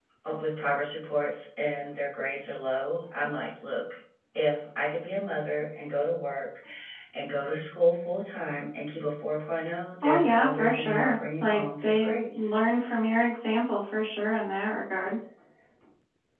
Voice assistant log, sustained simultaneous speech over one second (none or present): present